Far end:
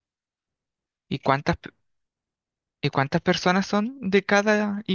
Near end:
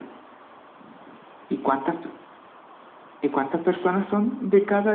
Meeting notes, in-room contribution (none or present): none